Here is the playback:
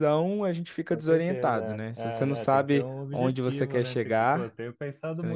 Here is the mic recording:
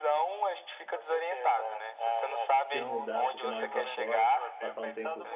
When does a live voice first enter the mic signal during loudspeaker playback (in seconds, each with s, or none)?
2.7 s